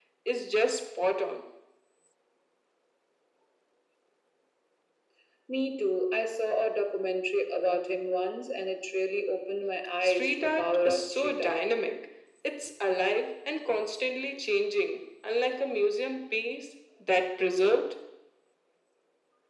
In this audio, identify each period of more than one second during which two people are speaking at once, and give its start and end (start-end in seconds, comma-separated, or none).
10.0-11.6